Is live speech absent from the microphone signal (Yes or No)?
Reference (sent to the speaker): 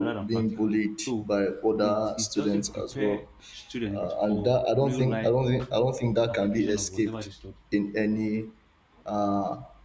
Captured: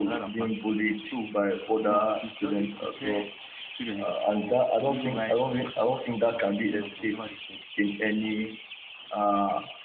Yes